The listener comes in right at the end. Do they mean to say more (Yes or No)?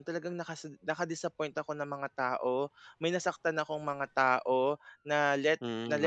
No